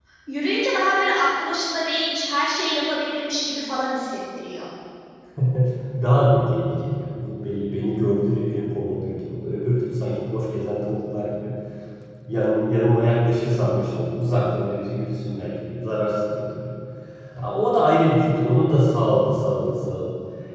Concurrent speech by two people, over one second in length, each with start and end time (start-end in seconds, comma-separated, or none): none